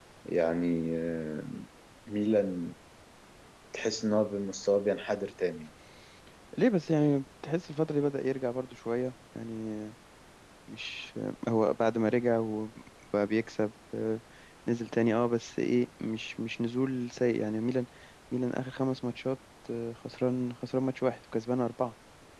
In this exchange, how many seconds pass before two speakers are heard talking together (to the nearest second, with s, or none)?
none